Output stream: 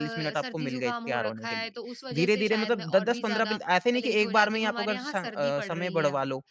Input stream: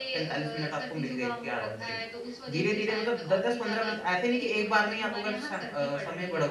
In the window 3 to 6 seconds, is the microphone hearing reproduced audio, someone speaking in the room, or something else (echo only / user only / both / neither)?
echo only